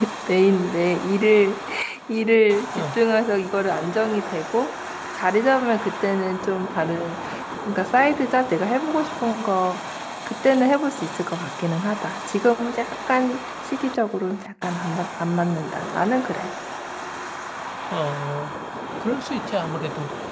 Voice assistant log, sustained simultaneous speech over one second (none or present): none